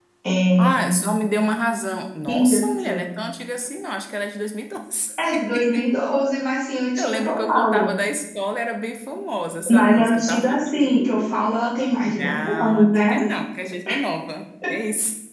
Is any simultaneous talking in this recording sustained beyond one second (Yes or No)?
Yes